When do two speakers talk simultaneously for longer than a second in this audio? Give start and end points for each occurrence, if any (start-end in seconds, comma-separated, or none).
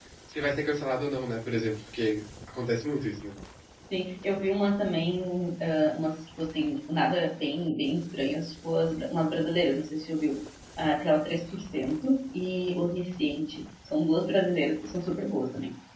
none